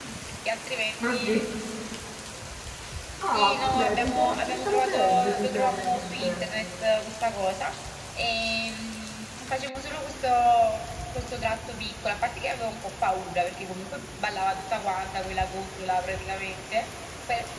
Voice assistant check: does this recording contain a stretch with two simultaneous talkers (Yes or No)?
Yes